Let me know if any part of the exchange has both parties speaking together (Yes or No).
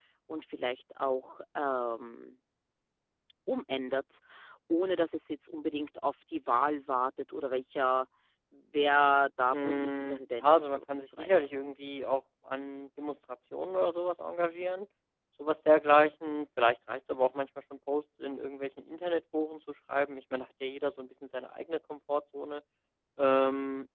Yes